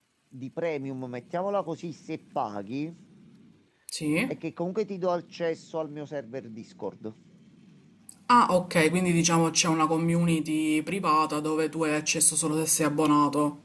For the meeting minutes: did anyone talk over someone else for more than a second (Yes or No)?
No